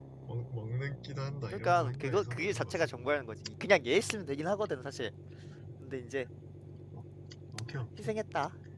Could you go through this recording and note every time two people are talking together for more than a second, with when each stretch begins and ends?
1.6-2.9

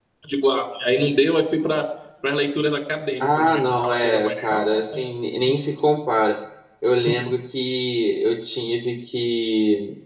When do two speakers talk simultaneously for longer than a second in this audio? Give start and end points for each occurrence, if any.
3.2-5.0

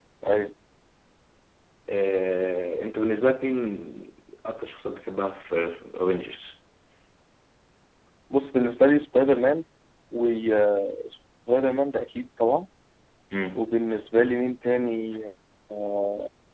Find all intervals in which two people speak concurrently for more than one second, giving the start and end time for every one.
none

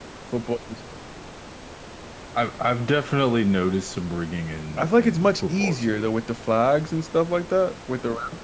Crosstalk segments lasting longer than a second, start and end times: 4.8-6.1

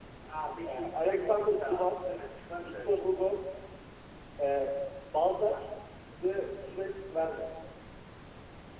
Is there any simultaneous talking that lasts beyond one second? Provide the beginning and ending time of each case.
0.6-2.0

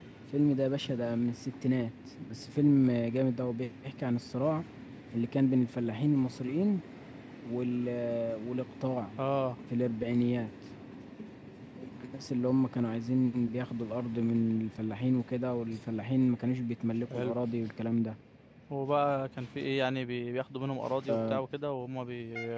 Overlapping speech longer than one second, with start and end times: none

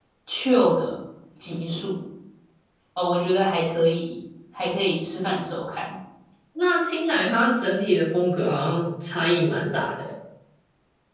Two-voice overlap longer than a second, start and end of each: none

